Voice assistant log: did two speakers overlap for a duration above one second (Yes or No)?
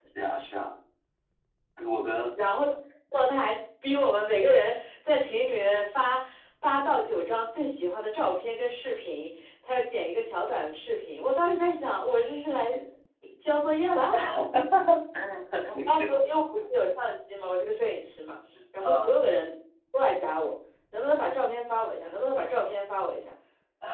No